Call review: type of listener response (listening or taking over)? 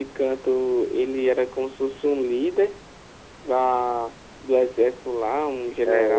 taking over